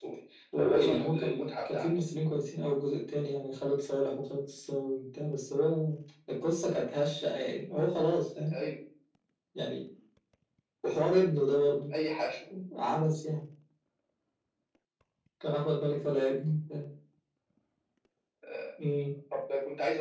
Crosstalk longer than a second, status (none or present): present